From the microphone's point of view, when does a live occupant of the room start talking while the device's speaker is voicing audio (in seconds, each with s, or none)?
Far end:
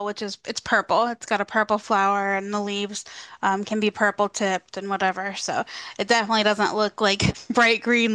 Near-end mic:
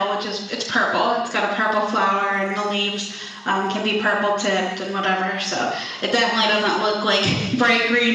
none